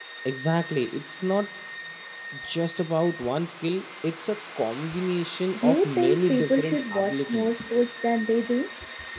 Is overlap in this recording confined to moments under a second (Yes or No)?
No